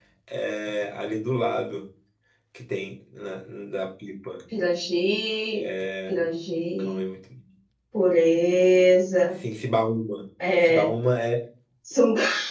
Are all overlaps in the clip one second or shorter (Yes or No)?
Yes